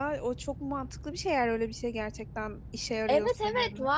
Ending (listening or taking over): taking over